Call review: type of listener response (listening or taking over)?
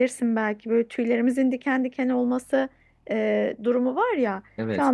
listening